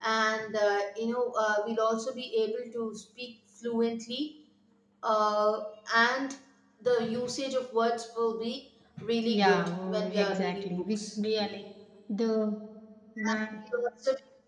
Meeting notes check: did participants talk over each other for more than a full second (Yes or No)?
Yes